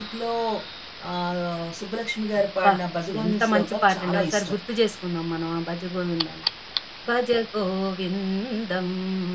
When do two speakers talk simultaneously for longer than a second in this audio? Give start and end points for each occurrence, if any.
3.2-4.5

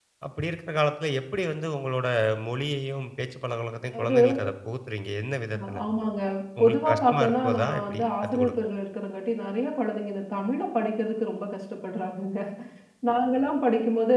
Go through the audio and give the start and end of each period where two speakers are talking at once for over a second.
6.6-8.5

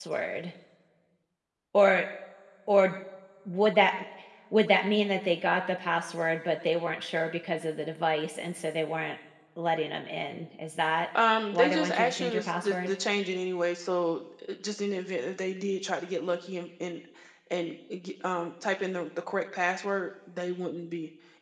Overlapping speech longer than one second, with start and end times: 11.5-12.9

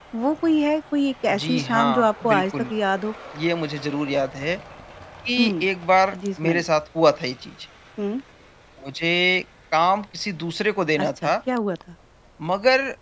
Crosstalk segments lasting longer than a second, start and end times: 1.3-2.7

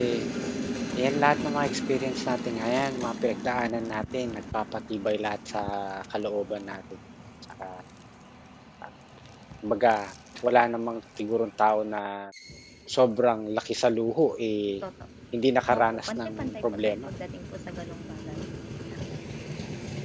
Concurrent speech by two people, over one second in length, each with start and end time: 15.8-17.1

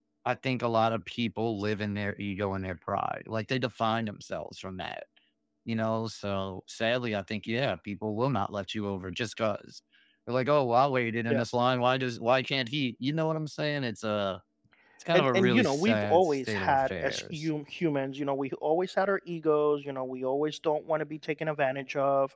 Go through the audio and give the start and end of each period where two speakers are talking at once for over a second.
15.1-17.5

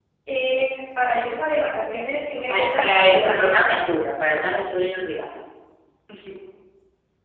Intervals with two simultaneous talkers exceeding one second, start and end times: 2.5-3.8

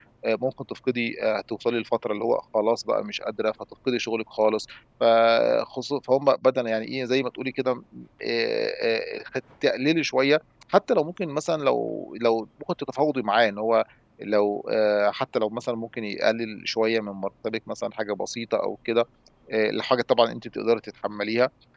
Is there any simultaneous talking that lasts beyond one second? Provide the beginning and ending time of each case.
none

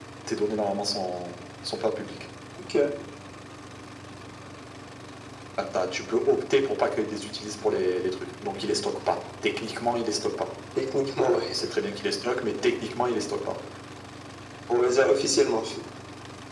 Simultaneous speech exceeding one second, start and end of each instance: none

